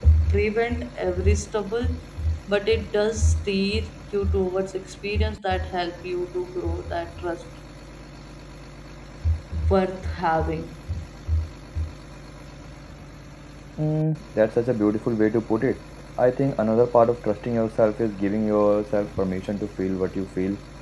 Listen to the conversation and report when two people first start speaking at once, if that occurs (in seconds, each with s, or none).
none